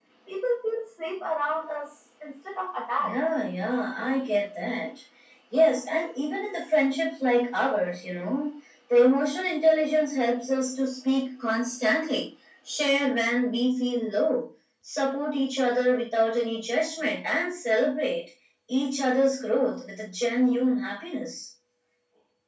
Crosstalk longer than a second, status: none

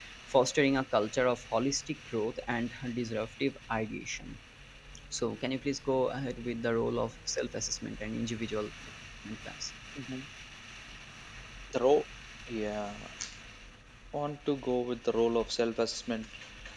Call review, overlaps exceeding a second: none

